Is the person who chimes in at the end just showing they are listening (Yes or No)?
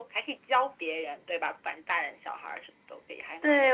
No